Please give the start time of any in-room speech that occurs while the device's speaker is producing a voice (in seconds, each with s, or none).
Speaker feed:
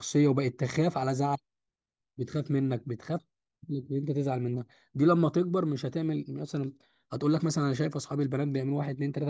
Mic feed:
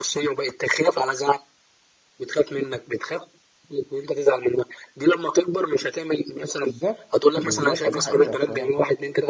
6.6 s